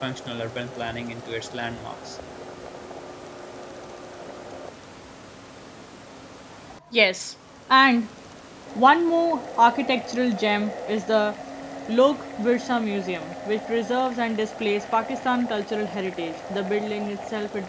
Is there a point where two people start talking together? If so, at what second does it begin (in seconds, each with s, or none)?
none